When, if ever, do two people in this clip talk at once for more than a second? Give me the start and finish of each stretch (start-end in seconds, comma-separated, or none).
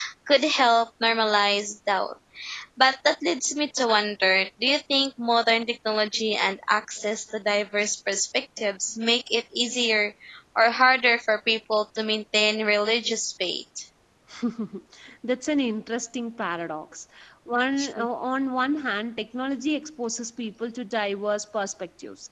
none